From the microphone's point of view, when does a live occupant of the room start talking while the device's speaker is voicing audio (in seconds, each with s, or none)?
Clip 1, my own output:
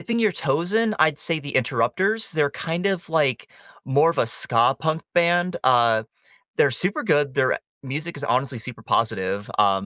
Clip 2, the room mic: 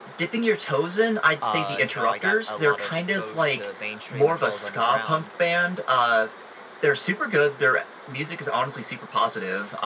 1.4 s